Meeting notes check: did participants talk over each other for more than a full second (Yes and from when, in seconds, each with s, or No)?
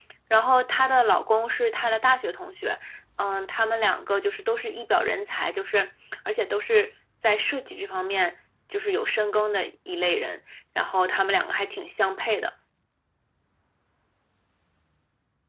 No